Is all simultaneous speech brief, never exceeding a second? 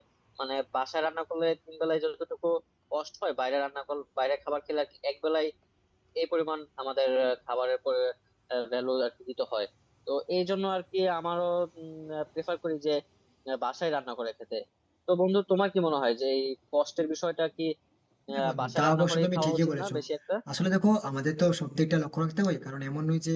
No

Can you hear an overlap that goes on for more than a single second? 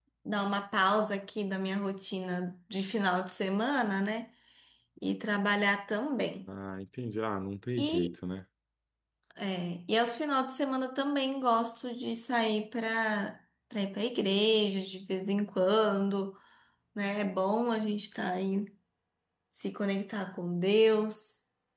No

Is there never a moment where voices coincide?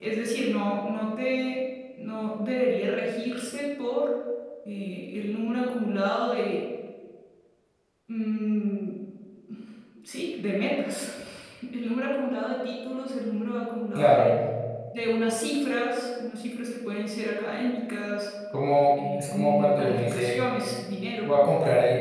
No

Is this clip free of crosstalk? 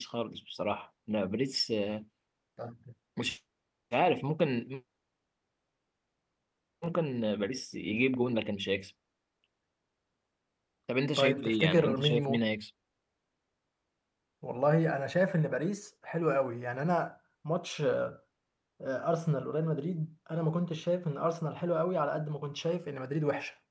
No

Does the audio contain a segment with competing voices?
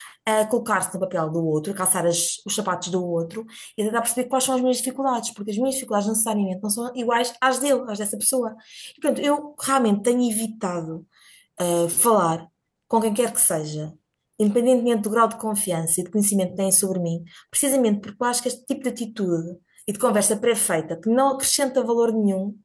No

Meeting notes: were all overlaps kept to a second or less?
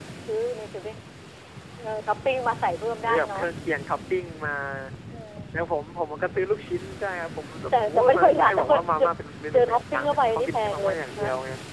No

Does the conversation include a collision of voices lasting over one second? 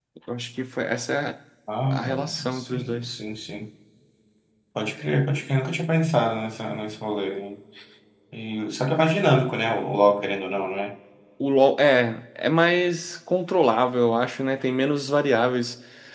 Yes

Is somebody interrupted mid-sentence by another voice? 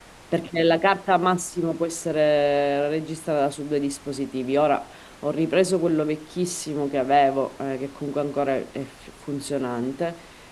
No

